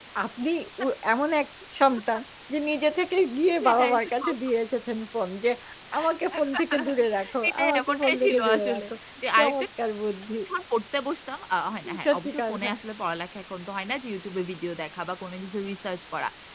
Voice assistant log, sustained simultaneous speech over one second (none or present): present